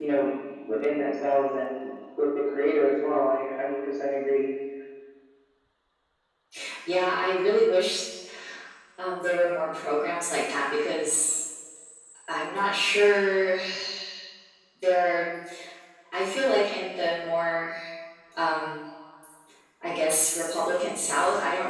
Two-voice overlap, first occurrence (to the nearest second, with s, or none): none